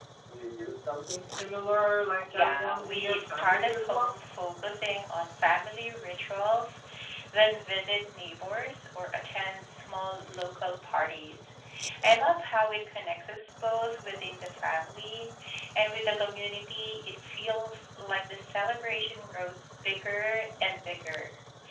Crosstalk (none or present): present